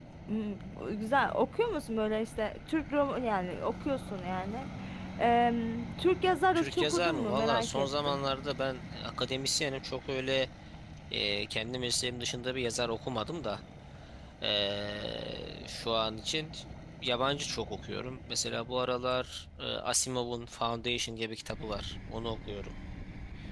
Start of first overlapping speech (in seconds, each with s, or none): 6.5 s